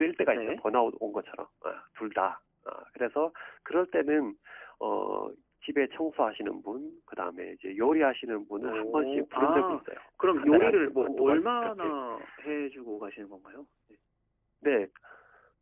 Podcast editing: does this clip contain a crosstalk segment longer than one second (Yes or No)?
Yes